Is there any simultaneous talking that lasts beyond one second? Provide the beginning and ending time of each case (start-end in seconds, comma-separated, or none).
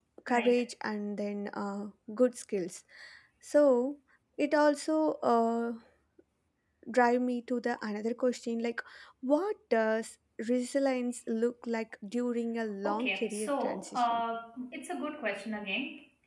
12.8-14.2